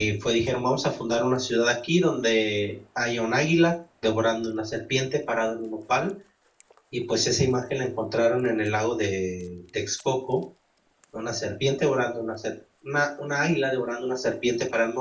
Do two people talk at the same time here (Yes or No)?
No